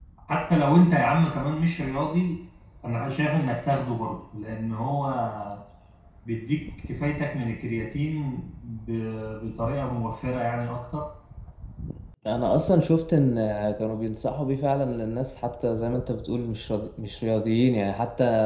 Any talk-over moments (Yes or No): No